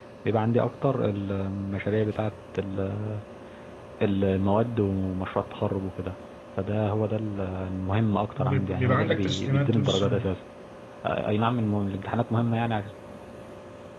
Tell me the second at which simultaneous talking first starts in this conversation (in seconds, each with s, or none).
8.4 s